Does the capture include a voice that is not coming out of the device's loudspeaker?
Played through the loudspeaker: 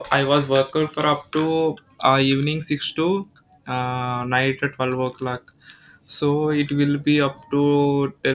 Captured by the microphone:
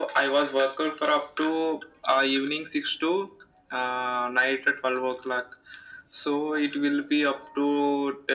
No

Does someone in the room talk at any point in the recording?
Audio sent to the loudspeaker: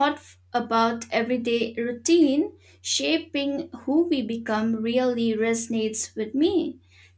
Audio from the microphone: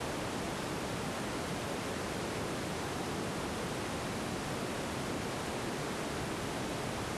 No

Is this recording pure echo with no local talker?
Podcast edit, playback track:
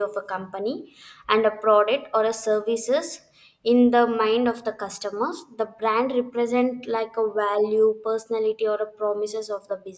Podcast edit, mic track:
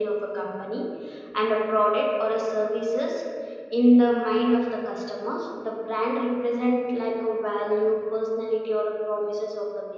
Yes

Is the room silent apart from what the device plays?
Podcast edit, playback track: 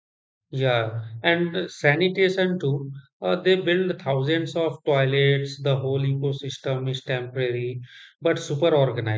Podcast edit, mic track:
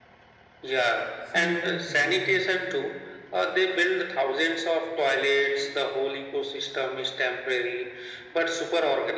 No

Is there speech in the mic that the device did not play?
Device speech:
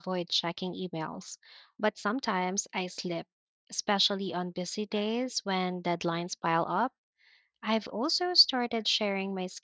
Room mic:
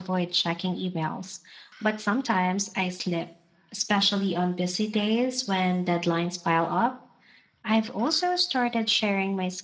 No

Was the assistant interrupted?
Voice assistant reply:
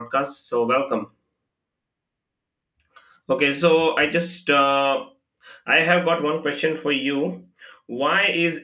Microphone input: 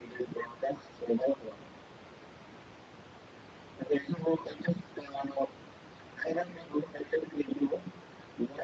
No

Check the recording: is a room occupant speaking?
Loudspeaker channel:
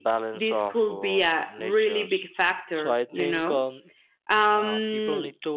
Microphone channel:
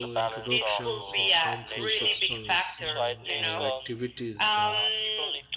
Yes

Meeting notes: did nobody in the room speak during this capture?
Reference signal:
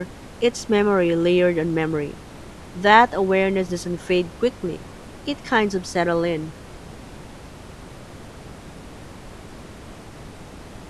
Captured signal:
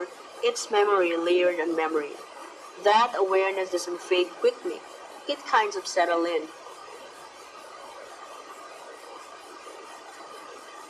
Yes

